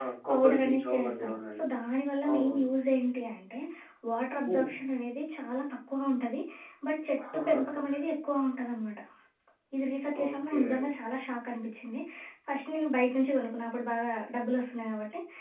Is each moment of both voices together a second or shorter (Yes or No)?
No